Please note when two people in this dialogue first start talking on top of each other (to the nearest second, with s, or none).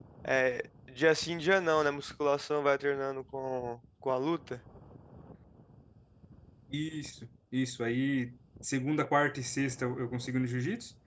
none